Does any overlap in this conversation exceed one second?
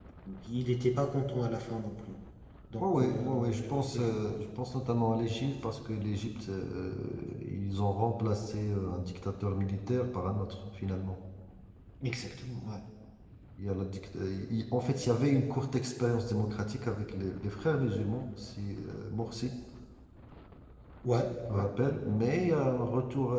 Yes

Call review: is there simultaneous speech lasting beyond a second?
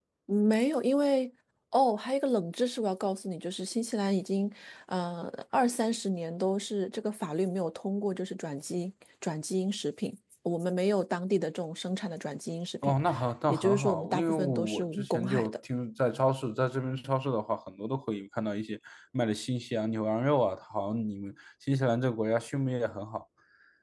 Yes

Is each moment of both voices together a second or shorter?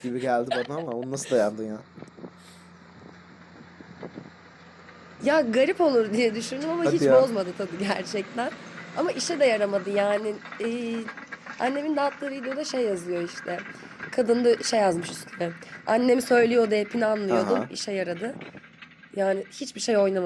Yes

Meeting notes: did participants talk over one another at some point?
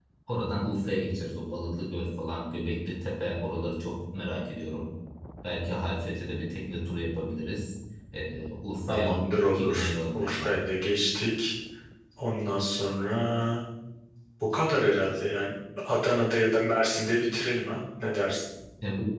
Yes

